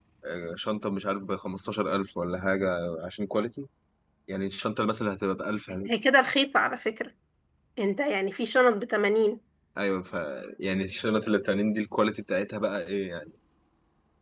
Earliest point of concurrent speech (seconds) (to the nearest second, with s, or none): none